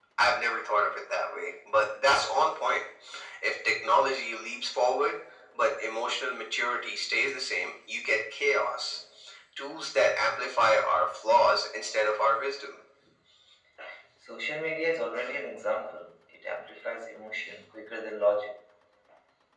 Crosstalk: none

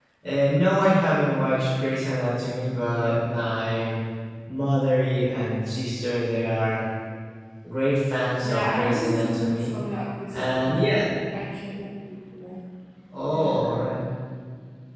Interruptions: present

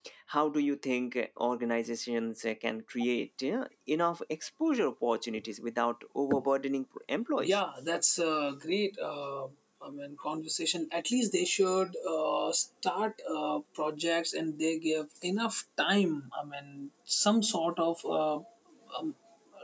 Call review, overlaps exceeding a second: none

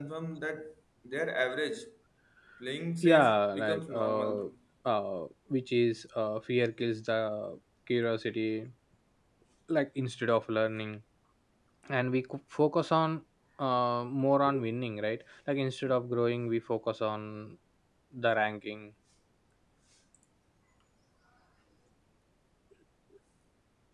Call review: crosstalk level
present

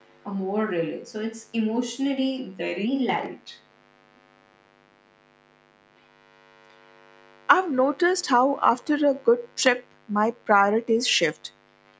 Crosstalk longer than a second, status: none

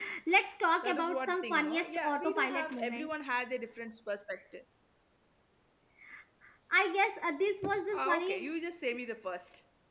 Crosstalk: present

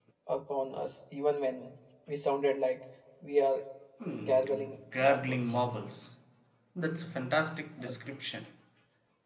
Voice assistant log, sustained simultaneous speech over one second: present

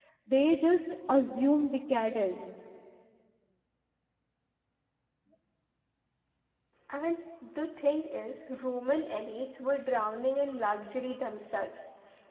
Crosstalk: none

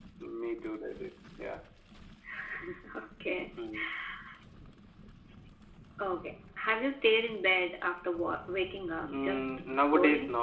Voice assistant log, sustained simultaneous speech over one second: present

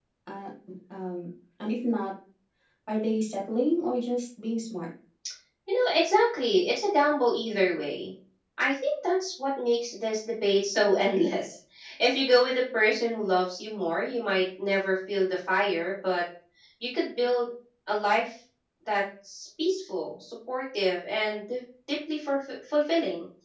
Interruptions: none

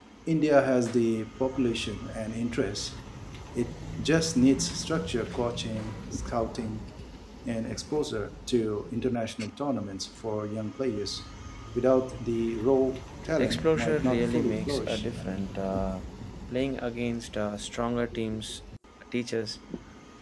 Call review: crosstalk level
present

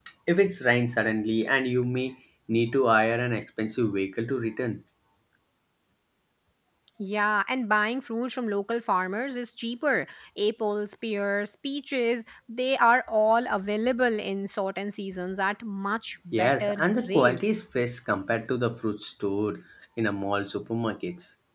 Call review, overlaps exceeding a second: present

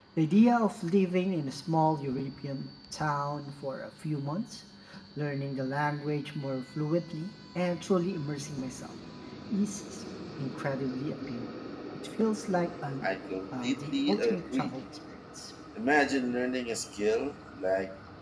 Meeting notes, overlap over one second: present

